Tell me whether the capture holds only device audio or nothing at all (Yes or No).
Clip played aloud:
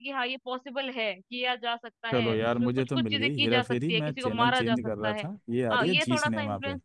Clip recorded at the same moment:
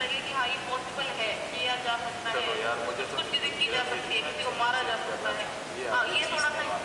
Yes